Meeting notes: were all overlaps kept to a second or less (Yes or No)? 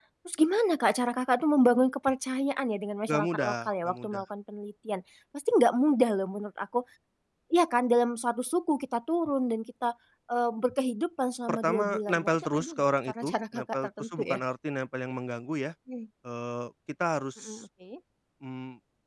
No